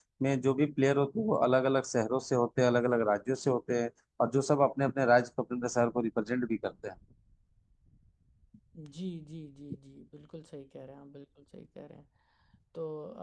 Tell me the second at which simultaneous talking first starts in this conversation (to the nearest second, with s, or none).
none